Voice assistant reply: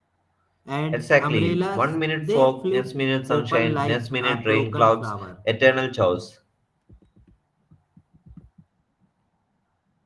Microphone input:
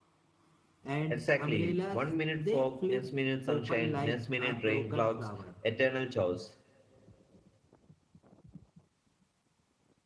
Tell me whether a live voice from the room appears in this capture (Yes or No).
No